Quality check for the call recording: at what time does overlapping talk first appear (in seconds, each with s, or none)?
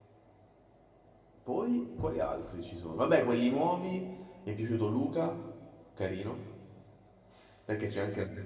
none